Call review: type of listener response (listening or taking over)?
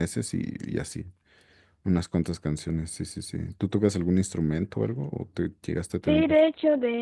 taking over